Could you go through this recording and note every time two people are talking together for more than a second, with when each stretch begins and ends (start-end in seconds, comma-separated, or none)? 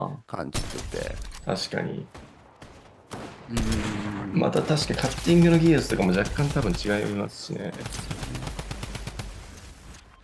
none